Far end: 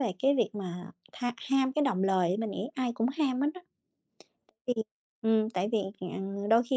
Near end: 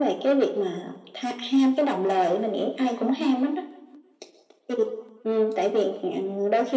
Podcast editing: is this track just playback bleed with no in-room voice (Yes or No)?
Yes